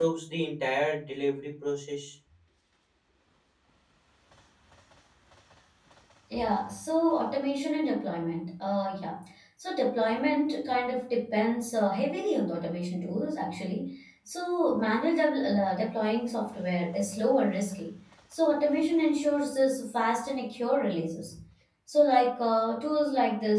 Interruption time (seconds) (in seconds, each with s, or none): none